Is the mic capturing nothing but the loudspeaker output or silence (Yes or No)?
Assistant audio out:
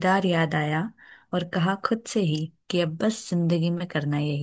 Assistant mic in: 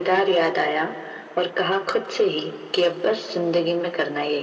Yes